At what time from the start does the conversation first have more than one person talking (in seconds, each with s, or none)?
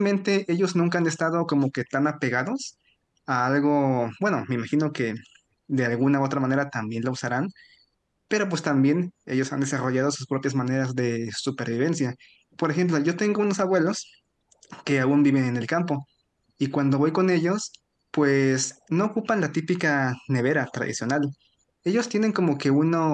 none